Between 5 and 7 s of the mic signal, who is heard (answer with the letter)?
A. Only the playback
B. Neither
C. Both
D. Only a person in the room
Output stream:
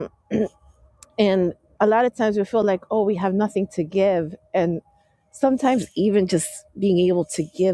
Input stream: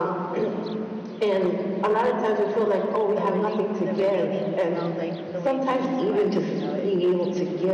C